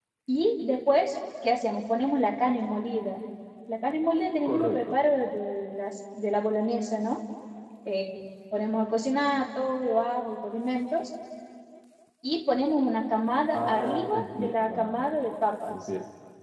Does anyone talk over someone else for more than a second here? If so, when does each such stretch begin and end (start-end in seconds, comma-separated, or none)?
13.5-15.2